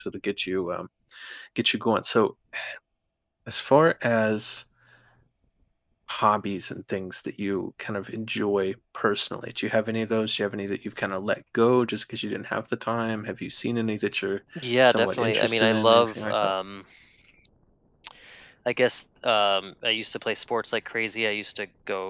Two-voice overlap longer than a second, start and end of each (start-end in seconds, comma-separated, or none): 14.8-16.5